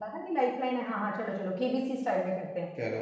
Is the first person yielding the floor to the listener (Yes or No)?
Yes